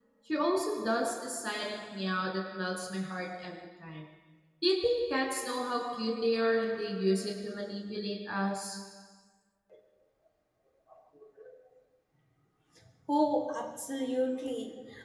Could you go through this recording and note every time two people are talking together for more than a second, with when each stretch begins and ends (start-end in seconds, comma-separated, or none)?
none